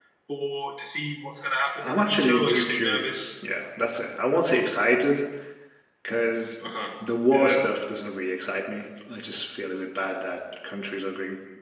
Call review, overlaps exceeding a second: present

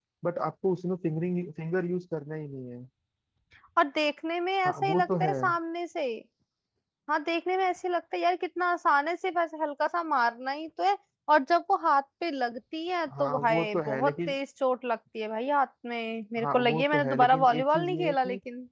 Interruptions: present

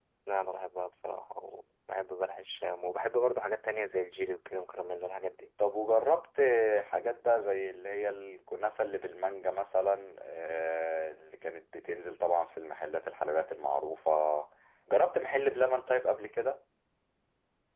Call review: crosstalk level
none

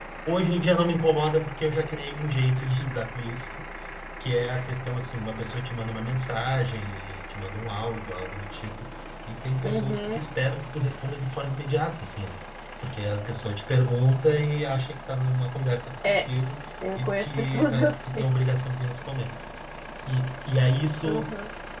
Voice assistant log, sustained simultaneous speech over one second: present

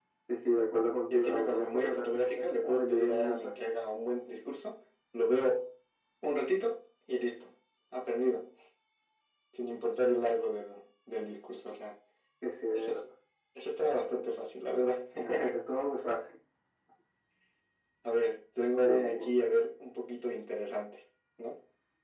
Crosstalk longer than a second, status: present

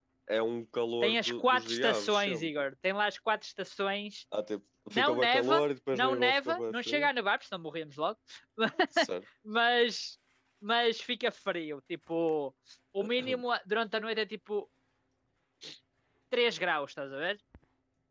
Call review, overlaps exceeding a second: present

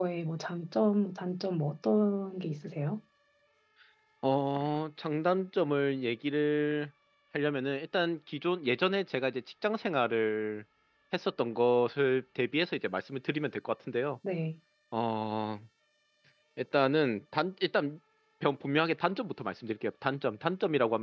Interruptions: none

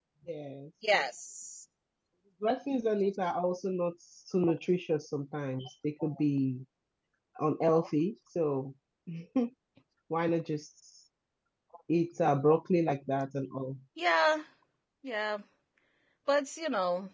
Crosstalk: none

